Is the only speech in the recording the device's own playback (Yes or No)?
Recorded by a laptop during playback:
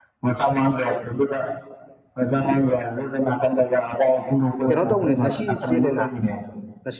No